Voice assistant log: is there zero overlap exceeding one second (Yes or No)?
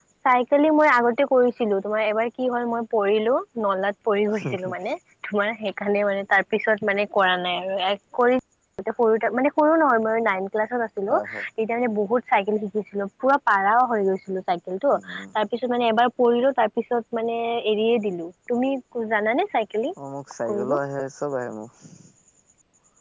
Yes